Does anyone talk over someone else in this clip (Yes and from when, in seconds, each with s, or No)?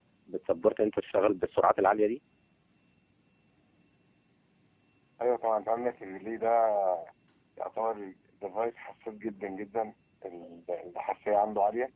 No